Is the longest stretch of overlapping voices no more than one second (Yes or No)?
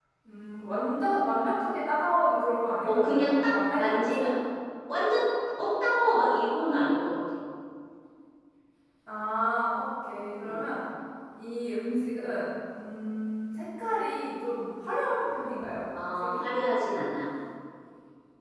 No